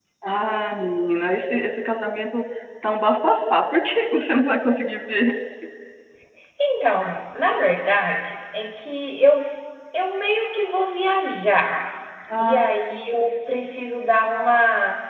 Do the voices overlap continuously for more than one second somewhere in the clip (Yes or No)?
No